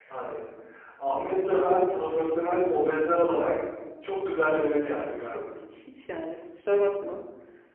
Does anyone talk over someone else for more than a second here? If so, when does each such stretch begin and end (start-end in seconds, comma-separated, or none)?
none